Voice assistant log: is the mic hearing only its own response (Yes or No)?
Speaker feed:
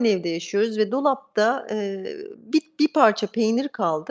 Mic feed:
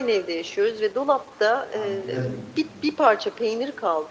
No